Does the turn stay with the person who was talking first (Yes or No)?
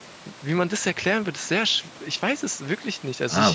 No